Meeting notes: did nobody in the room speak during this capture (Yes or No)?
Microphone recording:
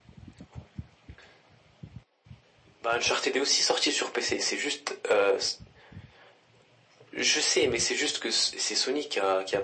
Yes